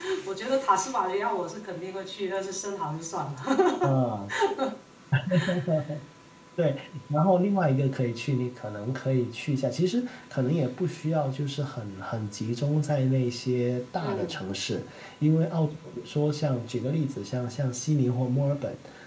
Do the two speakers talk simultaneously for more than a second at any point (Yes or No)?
No